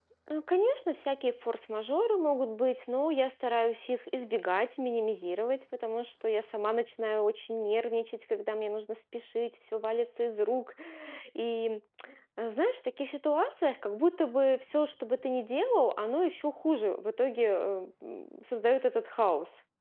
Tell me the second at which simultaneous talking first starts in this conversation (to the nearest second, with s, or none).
none